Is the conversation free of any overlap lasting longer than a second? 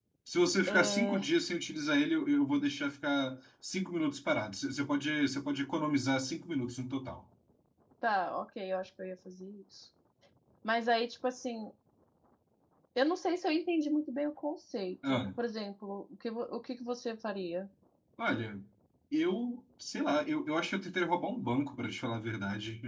Yes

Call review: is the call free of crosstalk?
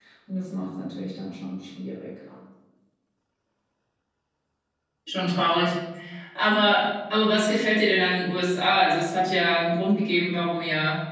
Yes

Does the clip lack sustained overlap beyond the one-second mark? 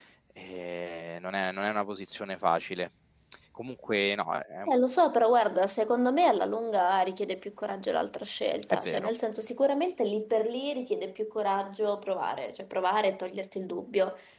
Yes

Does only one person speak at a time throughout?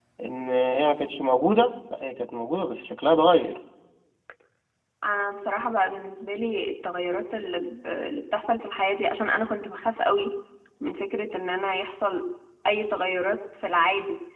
Yes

